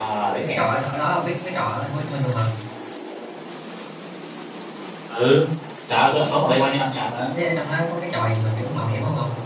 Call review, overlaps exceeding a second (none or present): none